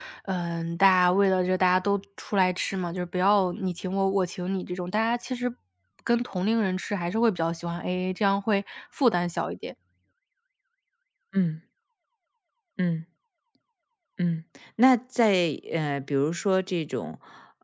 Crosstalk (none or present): none